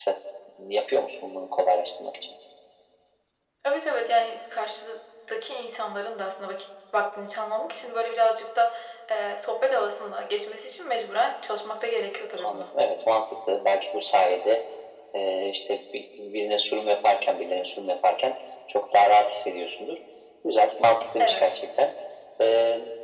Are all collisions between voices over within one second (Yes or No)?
Yes